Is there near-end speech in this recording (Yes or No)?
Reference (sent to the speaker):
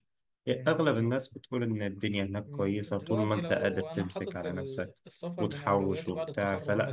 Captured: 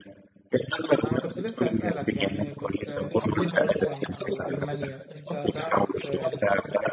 Yes